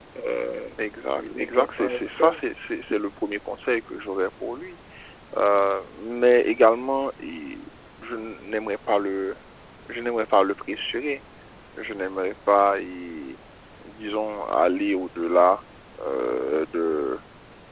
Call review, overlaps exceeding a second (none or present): present